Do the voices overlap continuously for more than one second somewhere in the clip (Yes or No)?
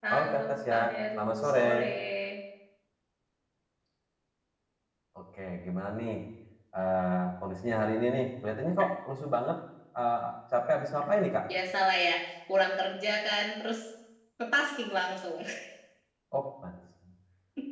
Yes